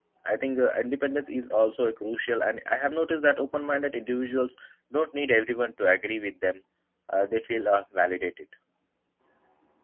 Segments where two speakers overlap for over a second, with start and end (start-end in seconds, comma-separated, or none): none